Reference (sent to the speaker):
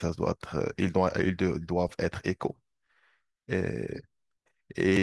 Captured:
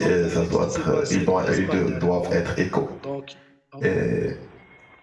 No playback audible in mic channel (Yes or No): No